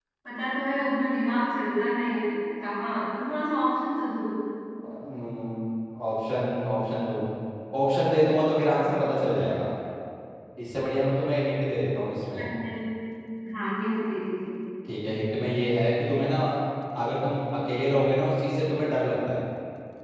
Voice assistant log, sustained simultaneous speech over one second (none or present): none